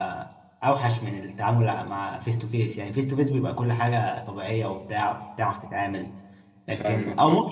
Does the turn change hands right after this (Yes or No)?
No